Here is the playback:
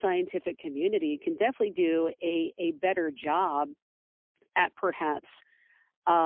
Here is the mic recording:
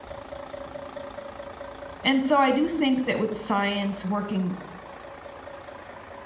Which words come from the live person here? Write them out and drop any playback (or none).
and so I do think that with science working